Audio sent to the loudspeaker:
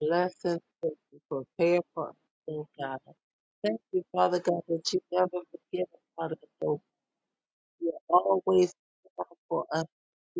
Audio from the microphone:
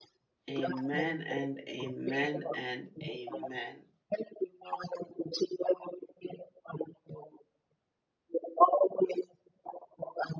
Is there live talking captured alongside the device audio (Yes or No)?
Yes